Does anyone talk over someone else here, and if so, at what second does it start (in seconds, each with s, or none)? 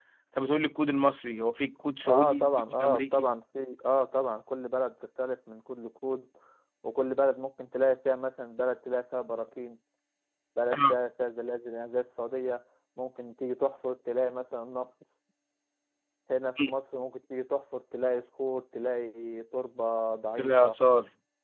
2.0 s